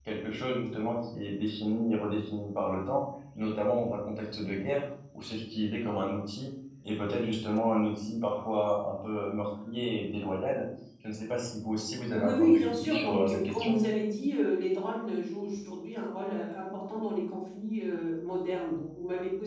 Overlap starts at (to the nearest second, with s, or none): 12 s